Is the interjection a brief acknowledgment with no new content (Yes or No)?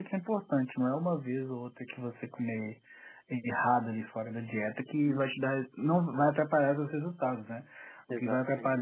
Yes